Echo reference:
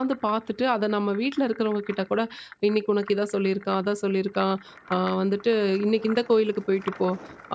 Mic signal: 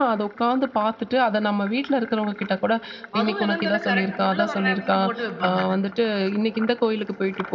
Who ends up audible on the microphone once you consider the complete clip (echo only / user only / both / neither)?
both